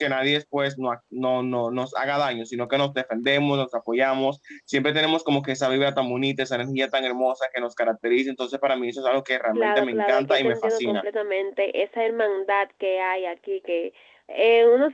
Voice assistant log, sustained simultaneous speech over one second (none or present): present